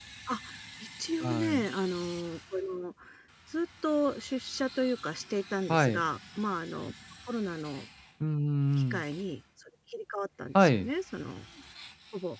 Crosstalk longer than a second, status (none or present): none